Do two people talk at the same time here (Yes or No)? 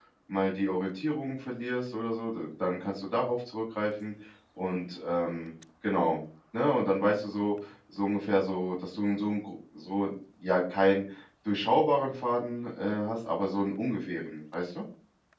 No